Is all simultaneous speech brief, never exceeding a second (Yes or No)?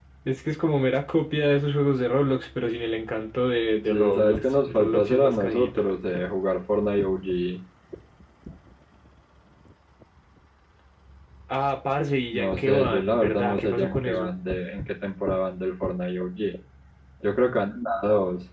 No